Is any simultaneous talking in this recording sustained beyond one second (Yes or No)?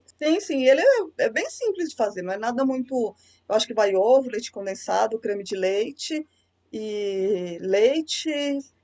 No